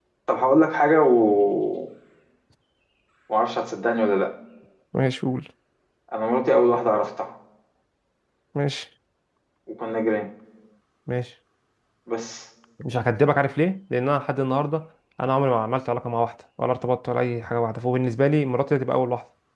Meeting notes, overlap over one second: none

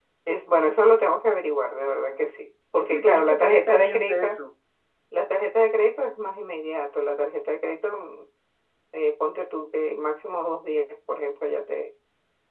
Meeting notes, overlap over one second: present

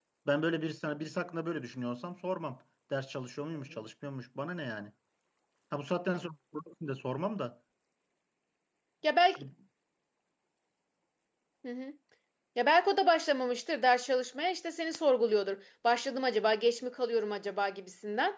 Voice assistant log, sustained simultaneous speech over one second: none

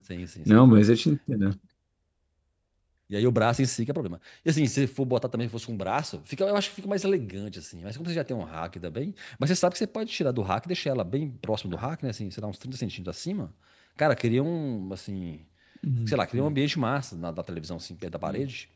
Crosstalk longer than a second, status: none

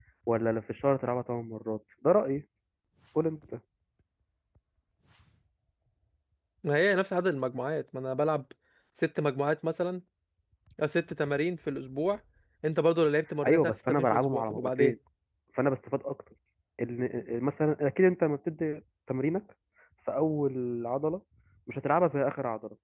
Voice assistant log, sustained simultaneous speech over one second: present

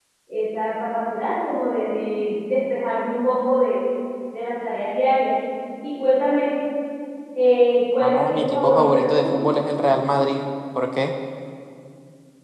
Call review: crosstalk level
present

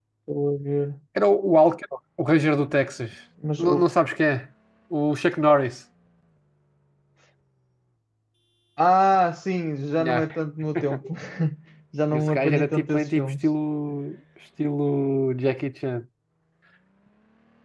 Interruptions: present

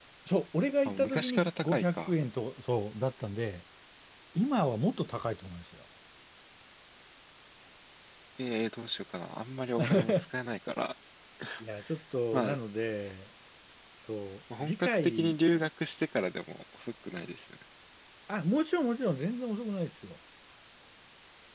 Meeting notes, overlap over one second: present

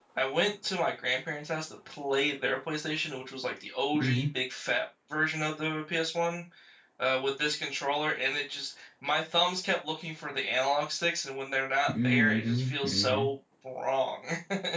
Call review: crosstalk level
present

